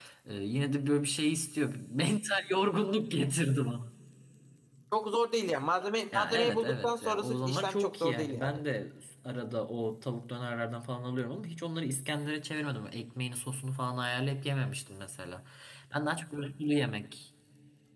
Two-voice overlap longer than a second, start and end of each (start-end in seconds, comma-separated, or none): 6.1-8.6